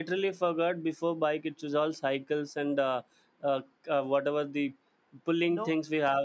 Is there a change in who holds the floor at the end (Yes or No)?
No